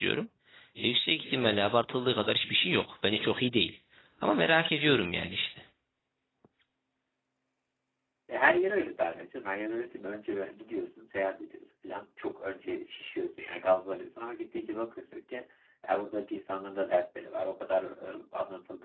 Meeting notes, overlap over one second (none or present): none